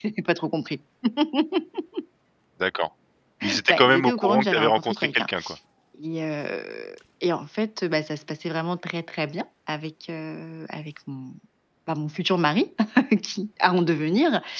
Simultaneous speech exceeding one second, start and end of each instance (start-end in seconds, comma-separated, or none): 3.7-5.3